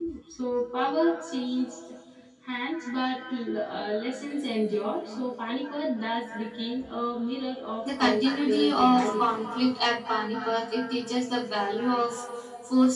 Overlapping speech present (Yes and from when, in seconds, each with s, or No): Yes, from 7.8 s